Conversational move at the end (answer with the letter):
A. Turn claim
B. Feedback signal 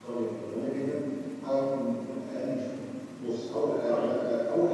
B